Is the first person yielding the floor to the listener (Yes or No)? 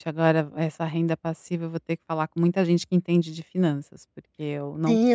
Yes